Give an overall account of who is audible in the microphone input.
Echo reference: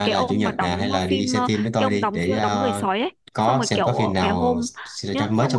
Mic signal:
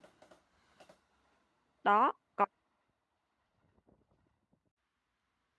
user only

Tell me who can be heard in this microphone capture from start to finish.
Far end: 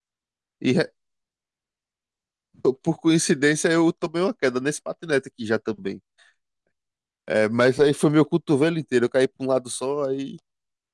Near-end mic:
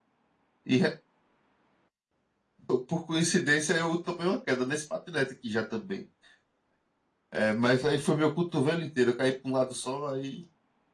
echo only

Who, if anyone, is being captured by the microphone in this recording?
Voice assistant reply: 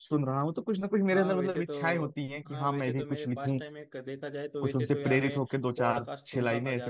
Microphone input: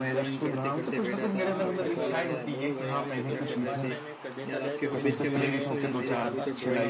both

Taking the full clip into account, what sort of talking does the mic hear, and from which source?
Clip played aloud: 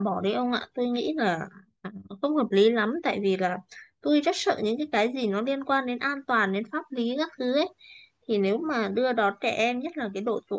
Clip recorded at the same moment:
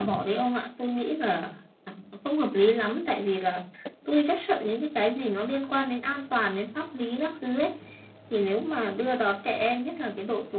echo only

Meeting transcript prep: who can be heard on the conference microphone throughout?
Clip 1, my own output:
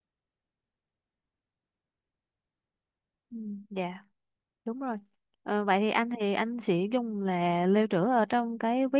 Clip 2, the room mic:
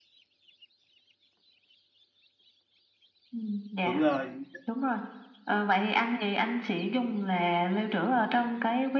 both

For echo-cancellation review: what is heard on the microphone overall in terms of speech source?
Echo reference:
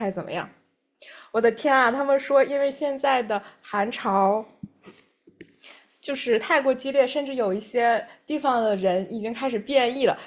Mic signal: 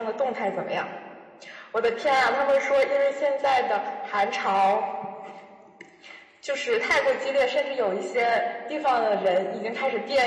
echo only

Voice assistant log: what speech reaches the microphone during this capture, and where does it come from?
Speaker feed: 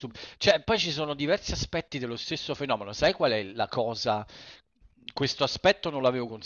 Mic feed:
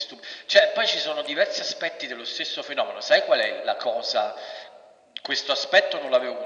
echo only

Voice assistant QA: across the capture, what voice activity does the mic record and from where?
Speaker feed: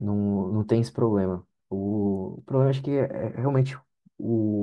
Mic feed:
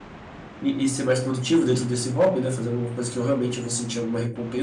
user only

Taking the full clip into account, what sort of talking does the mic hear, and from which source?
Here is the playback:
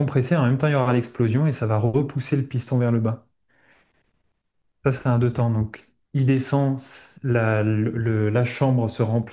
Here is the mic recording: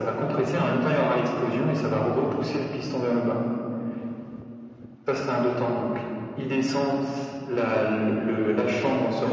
both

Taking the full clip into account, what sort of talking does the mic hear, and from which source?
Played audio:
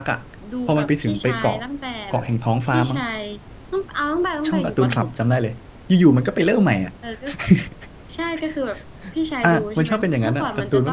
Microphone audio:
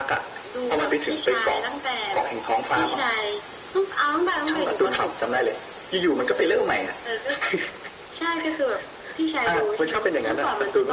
echo only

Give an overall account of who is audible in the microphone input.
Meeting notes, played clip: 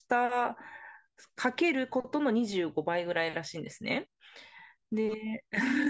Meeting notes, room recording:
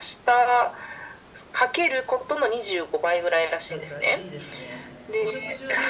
both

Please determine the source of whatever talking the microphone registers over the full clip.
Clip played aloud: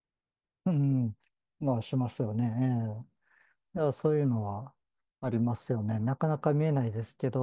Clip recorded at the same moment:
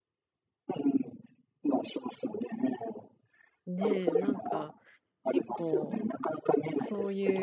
both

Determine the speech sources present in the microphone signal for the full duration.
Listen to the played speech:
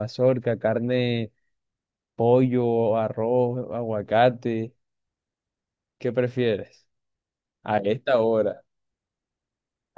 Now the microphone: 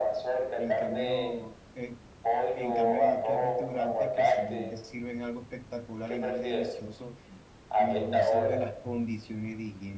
both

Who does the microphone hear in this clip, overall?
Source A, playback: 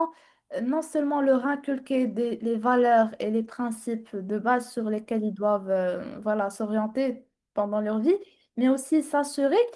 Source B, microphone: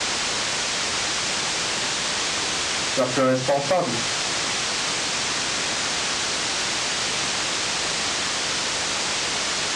user only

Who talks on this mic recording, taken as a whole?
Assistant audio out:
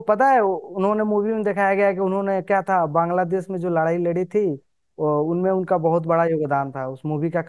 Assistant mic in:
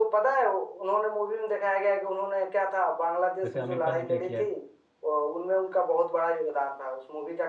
both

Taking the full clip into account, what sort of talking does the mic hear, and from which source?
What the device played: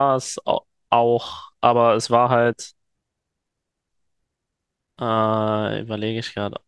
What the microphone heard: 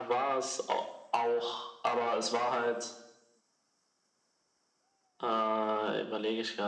echo only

